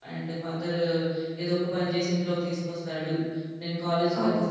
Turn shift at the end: No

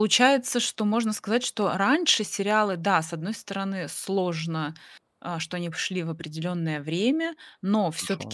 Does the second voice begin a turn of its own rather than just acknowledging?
No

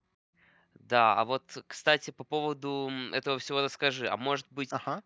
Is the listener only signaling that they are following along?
Yes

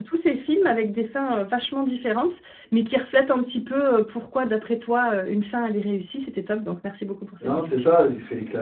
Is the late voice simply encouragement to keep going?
No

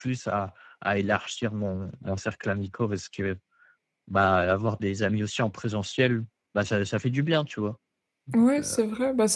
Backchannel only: No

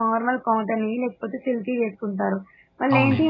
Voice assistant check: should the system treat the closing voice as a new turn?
No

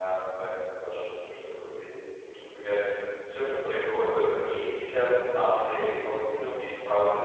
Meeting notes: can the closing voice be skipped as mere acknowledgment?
Yes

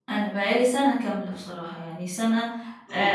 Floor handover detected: No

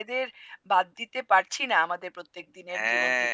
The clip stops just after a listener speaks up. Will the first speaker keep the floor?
No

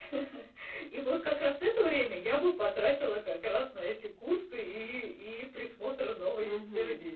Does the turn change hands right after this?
Yes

